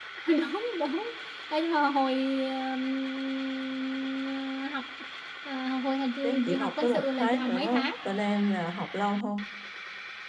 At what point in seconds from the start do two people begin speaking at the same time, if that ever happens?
6 s

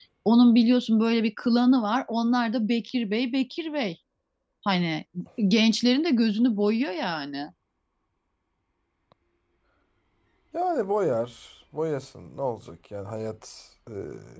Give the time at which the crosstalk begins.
none

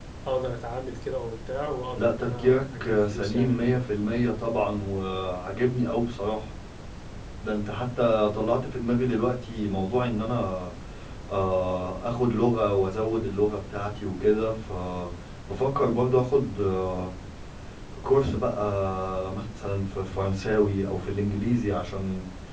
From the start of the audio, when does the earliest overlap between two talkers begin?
2 s

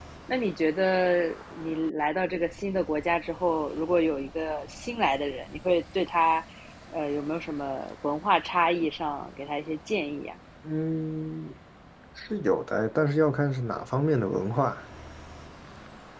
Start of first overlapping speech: none

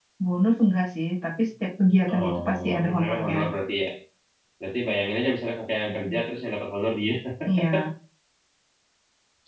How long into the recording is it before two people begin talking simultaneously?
2 s

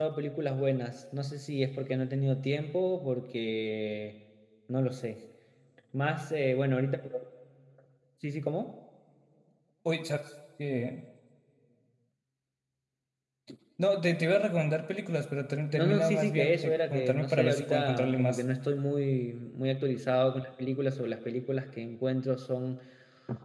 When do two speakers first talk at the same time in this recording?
16 s

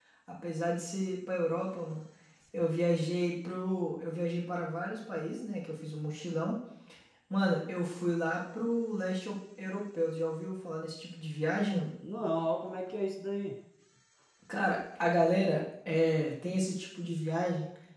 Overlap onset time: none

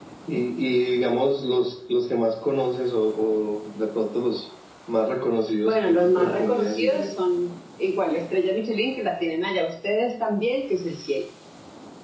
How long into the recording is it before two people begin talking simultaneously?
6 s

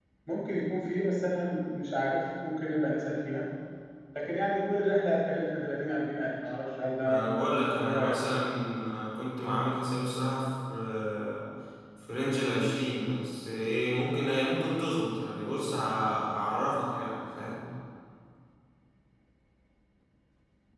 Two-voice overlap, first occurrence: 7 s

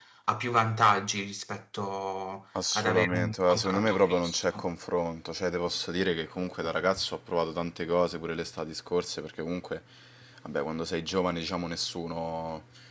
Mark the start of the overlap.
3 s

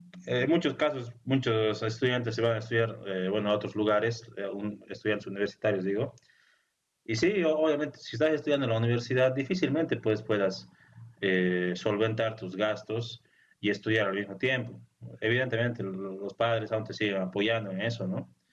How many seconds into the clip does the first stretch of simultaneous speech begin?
none

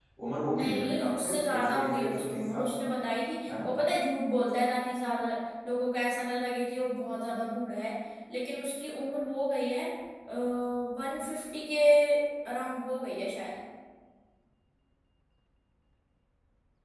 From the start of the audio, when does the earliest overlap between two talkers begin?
1 s

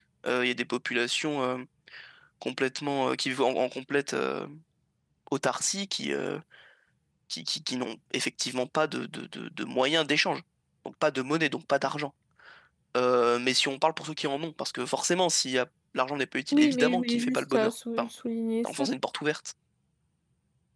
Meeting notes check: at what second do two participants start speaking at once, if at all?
17 s

